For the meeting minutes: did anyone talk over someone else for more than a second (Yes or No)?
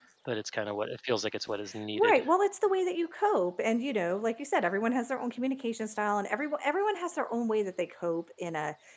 No